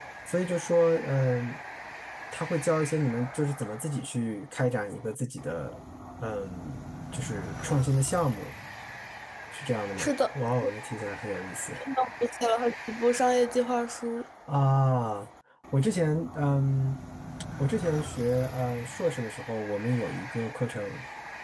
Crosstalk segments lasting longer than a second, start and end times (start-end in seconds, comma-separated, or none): none